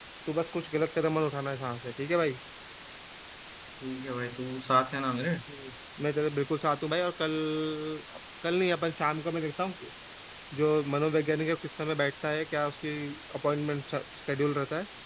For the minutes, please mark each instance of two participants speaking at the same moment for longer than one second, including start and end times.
none

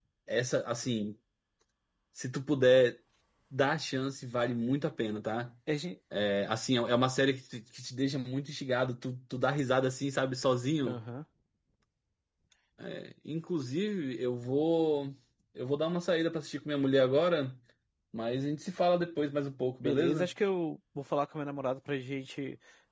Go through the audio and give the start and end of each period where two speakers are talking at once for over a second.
none

